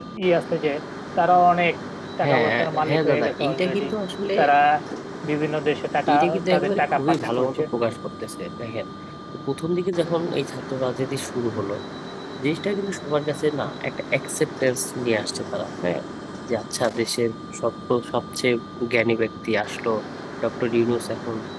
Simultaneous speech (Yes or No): Yes